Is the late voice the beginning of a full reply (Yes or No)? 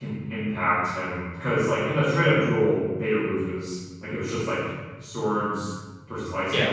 Yes